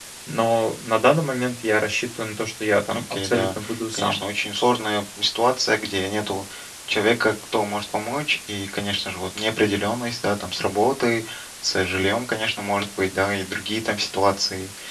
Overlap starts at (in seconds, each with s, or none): 2.9 s